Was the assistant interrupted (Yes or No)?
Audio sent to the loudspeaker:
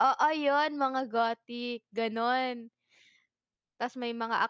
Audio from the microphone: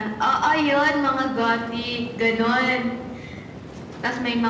No